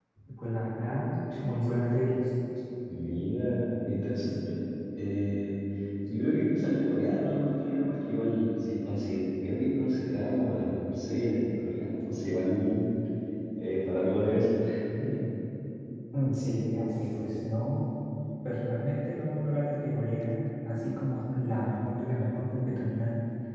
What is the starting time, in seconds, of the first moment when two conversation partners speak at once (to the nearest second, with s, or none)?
none